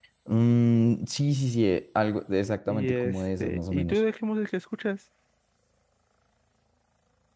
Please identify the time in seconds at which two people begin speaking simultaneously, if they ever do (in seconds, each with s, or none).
2.7 s